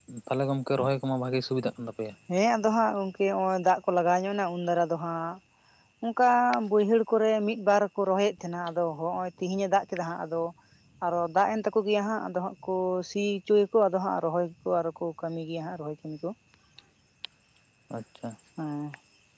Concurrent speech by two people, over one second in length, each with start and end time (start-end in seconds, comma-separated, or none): none